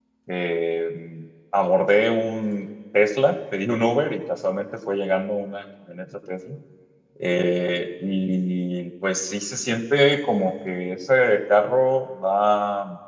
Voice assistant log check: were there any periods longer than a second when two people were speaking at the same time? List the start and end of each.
none

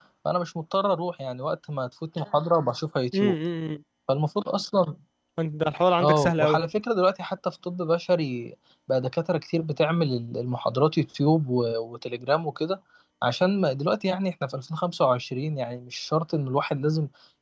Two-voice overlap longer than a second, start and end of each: none

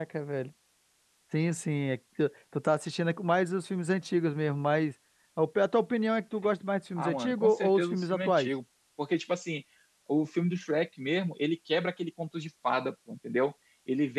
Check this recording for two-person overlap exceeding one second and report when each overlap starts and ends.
7.0-8.5

